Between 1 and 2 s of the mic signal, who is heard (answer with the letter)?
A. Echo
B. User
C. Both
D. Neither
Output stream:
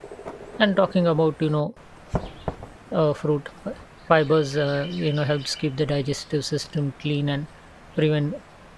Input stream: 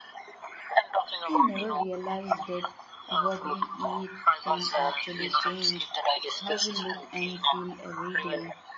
C